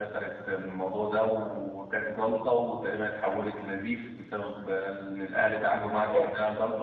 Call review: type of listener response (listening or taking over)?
listening